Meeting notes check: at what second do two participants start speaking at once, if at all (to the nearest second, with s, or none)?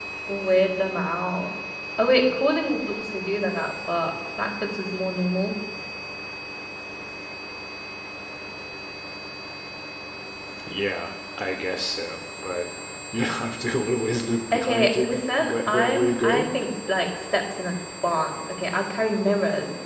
15 s